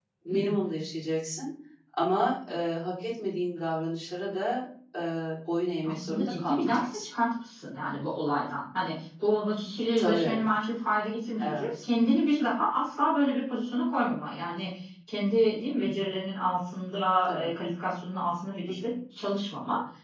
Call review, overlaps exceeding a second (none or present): present